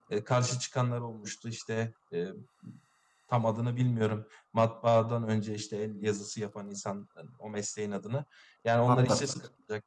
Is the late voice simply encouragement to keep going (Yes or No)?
Yes